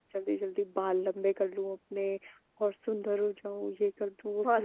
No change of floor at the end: No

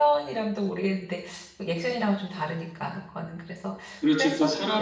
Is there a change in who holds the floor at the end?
Yes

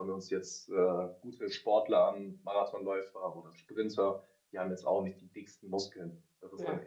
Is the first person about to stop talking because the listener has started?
No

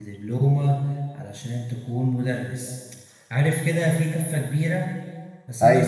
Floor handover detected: No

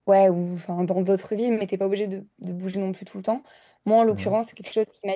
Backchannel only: Yes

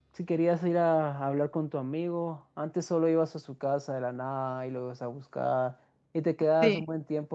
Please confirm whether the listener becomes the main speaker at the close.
No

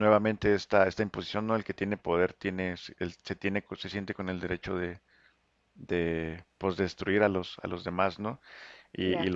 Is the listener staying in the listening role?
Yes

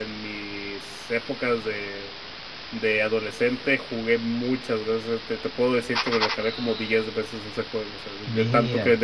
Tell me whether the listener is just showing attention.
Yes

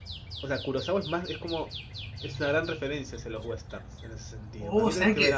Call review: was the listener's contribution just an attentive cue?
No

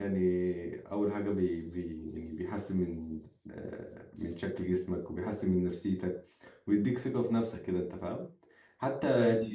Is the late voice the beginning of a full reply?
No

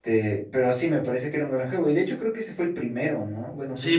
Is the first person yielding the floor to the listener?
Yes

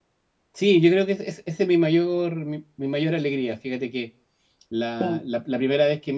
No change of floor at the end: Yes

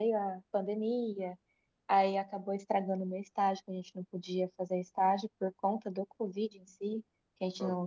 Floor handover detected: No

